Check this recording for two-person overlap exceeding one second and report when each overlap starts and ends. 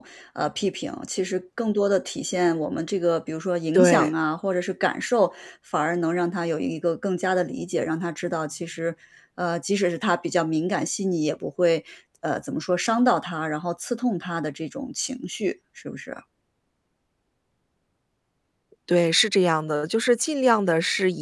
none

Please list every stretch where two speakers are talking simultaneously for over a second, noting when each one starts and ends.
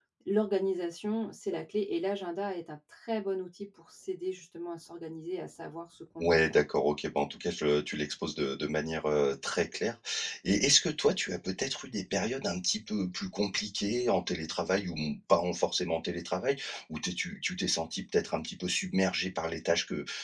none

